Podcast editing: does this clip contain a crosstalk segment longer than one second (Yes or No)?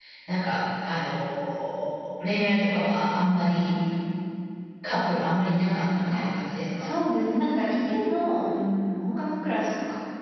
No